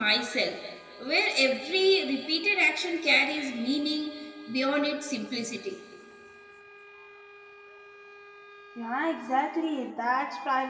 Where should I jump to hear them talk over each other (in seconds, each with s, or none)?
none